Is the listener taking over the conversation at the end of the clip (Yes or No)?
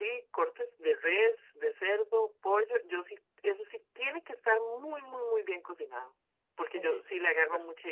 No